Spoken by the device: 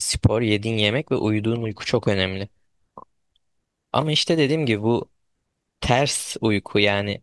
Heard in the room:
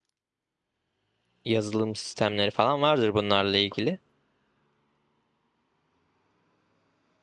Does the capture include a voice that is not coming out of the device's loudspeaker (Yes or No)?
Yes